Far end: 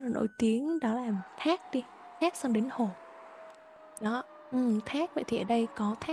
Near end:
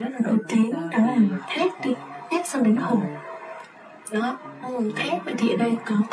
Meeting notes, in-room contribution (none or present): present